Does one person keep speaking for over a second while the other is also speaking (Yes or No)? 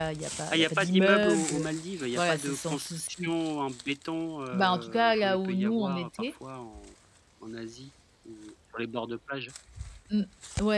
Yes